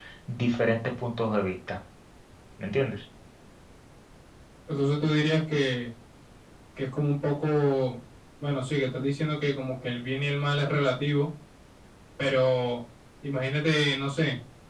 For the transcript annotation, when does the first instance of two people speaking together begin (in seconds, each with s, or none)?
none